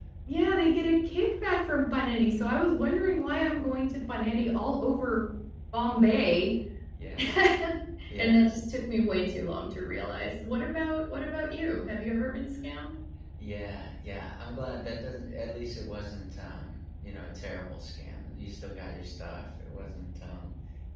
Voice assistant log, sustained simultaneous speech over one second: none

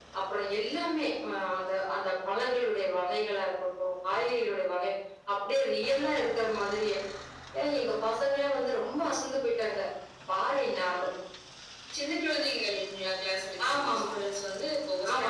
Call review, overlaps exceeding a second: none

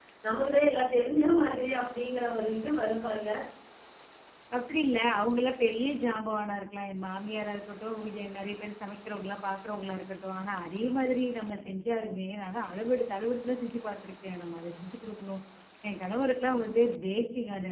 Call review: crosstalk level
none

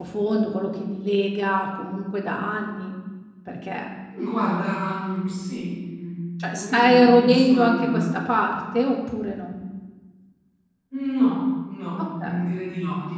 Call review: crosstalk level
present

